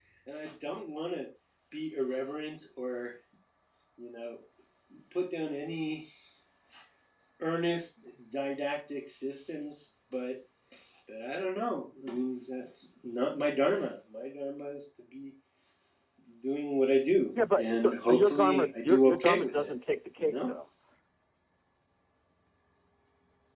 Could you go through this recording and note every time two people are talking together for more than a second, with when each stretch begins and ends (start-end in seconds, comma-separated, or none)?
17.5-19.7